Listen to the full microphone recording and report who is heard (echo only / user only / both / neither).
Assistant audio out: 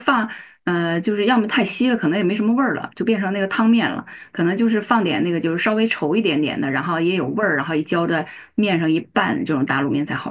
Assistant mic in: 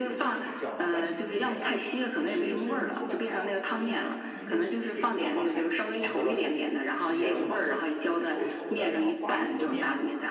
both